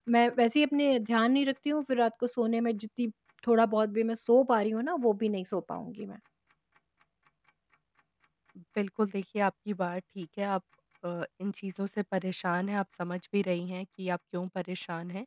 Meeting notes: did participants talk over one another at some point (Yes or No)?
No